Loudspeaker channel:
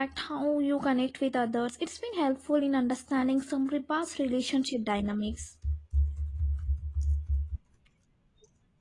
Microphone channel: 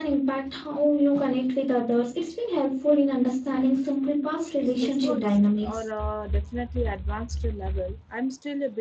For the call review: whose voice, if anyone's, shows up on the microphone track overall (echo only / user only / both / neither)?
both